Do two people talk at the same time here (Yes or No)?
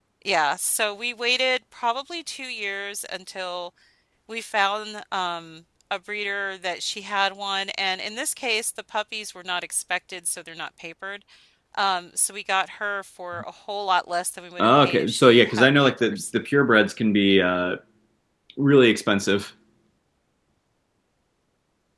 Yes